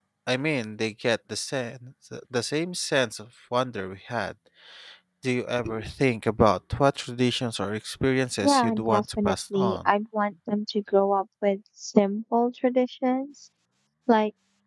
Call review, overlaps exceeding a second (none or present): present